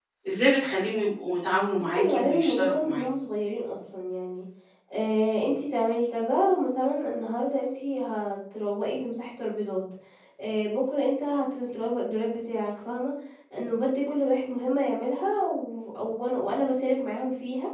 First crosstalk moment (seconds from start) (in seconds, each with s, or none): 1.8 s